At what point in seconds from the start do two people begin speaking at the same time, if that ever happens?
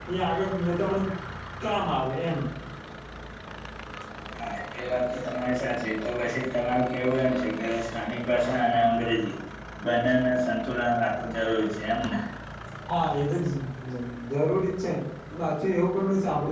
none

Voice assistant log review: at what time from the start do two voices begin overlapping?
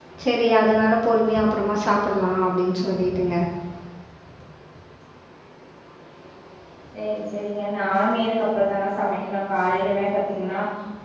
none

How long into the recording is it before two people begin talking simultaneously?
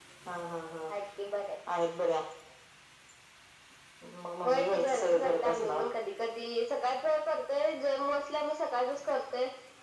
4.4 s

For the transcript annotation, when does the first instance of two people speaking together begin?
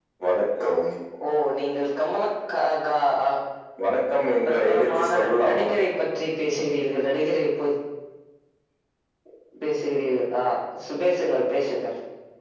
4.4 s

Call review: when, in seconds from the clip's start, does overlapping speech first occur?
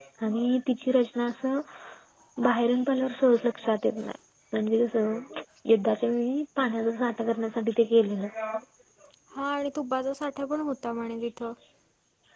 none

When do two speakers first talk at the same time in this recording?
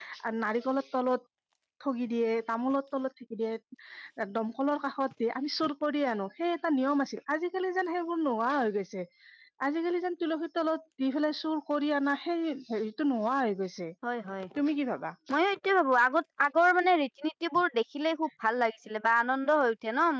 none

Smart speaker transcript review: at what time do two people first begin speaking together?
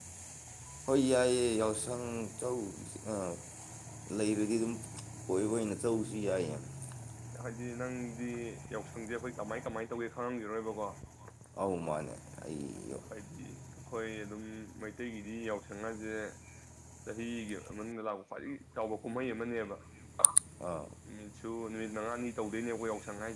none

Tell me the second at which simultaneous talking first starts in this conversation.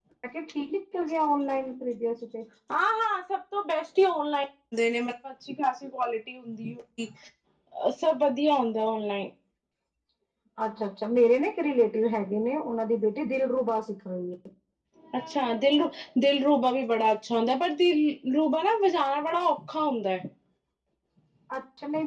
none

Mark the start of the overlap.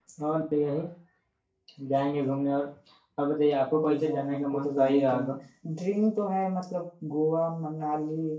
3.7 s

